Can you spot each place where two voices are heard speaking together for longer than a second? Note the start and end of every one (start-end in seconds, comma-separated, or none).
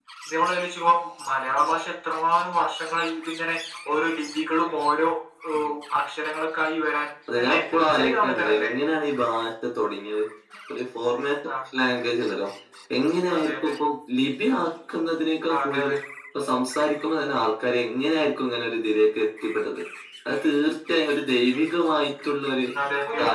7.4-8.7